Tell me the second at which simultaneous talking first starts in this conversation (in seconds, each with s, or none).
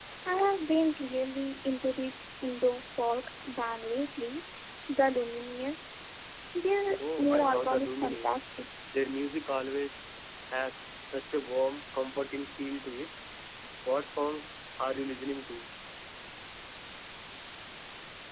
7.2 s